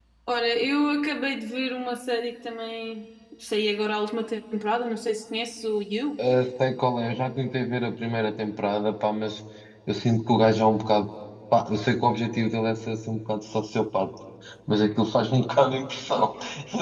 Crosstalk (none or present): none